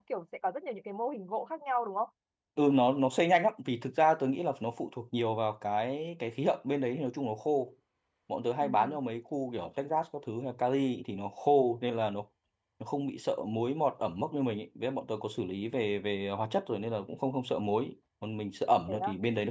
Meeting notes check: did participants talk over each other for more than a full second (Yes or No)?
No